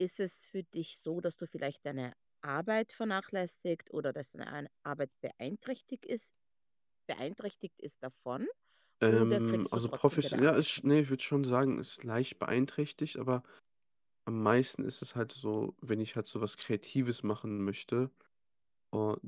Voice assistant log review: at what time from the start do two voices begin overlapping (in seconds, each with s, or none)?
9.1 s